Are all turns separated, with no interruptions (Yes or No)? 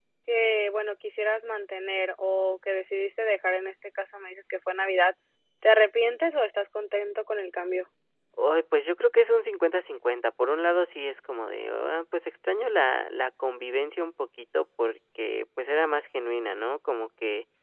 Yes